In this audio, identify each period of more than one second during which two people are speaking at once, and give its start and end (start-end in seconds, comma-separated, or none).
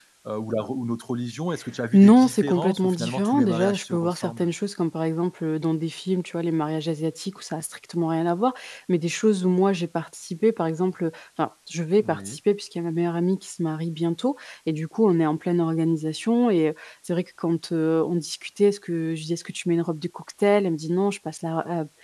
1.9-4.5